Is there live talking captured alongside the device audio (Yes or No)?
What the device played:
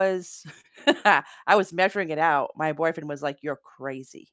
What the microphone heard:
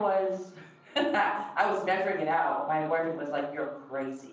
No